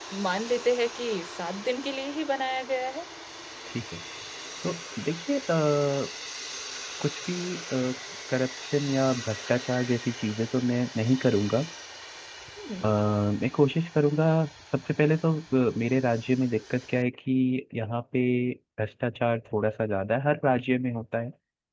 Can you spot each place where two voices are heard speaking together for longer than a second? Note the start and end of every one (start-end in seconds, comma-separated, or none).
none